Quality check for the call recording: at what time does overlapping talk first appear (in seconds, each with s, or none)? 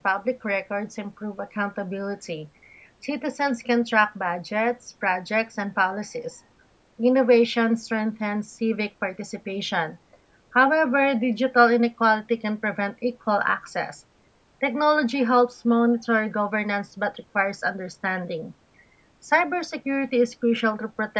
none